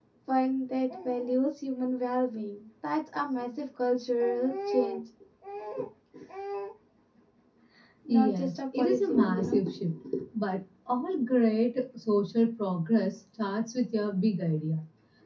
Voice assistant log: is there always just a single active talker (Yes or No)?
No